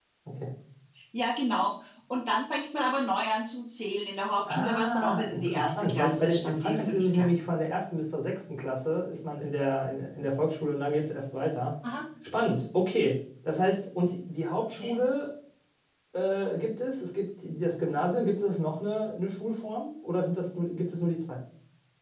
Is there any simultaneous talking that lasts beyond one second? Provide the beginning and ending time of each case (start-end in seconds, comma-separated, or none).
4.5-7.3